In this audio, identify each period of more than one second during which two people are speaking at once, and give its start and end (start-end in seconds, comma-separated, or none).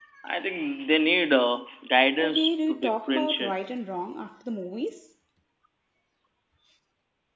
2.2-3.6